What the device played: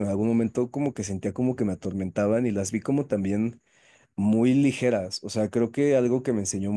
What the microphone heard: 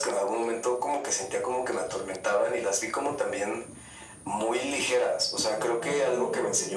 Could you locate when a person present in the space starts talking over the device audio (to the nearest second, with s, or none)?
5 s